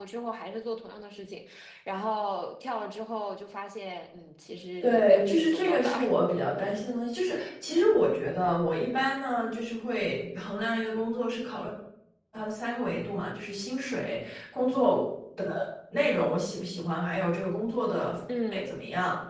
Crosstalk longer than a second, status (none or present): present